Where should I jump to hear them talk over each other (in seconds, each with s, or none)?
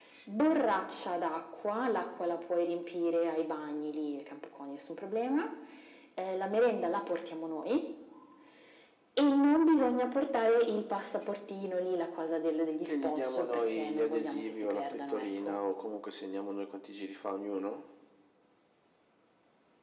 12.8 s